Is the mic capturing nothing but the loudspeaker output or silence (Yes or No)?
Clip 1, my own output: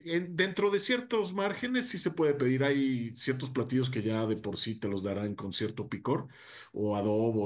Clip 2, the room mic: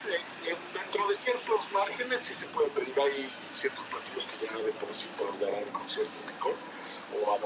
Yes